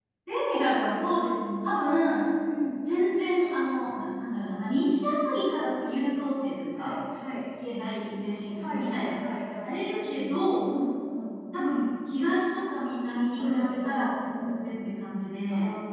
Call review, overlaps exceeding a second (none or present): present